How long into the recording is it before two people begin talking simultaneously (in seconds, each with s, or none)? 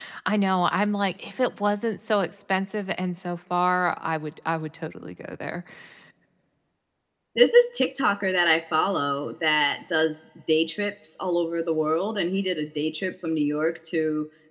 none